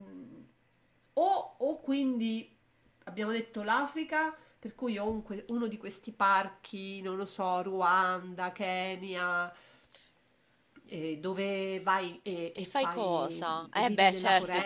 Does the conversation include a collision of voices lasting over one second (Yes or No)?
Yes